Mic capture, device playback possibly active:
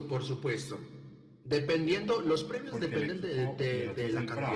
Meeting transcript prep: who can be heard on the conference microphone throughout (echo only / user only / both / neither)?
both